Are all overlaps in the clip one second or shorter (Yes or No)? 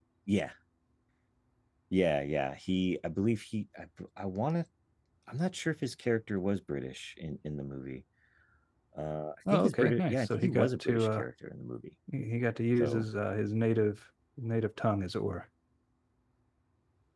No